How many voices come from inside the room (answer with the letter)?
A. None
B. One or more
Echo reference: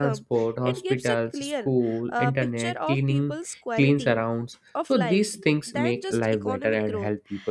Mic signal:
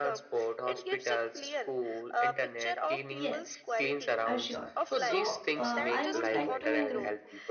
B